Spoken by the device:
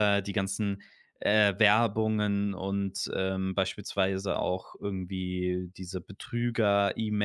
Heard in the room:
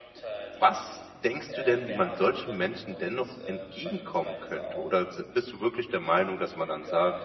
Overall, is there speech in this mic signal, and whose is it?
both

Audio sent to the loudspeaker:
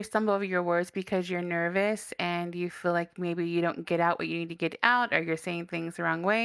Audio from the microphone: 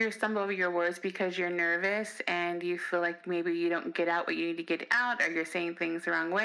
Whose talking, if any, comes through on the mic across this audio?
echo only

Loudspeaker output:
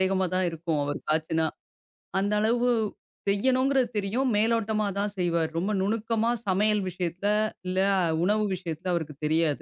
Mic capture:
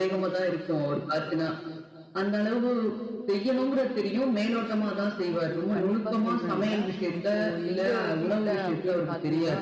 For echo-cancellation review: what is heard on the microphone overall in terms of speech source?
both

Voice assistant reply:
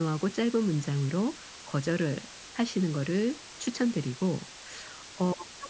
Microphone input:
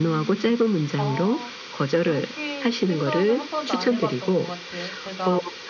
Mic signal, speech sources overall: both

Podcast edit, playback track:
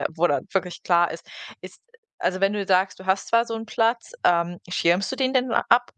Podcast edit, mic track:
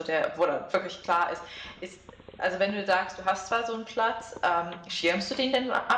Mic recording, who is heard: echo only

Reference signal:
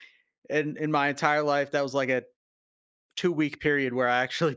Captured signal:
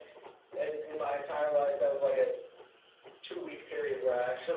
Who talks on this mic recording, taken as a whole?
echo only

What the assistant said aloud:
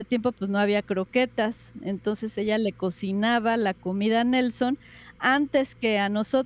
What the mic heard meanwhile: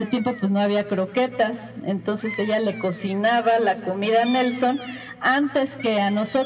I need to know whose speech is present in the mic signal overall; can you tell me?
echo only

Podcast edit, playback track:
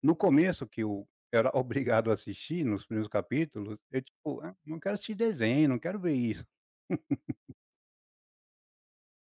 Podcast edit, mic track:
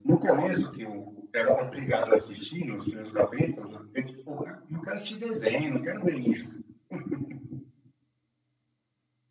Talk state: echo only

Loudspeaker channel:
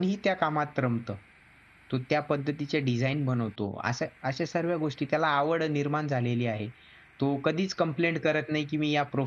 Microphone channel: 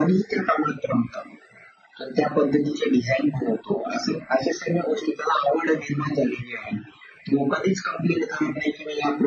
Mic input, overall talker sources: echo only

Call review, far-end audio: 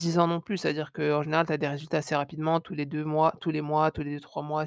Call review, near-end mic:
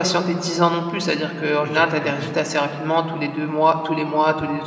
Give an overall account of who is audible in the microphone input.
both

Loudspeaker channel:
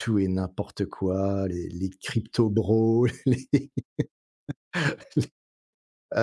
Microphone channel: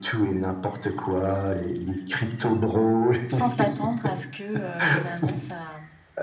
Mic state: both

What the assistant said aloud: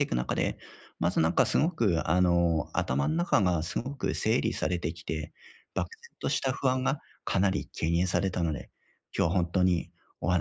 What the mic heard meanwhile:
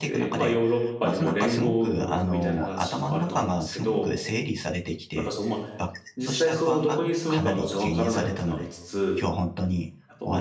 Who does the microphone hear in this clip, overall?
both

